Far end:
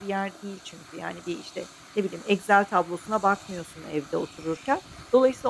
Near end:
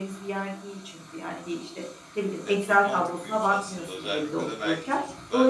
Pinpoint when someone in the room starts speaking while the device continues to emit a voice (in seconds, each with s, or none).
2.4 s